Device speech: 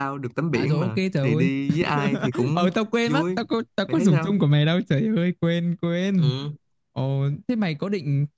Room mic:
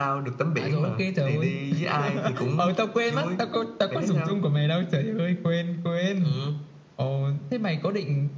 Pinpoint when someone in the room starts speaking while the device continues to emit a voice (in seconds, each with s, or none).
none